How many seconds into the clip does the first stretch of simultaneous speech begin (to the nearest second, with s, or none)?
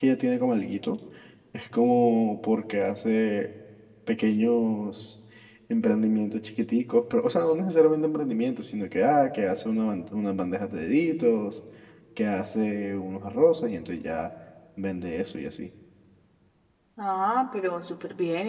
none